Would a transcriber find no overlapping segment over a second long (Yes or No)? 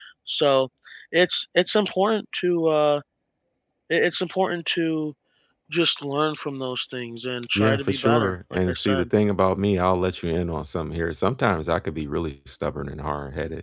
No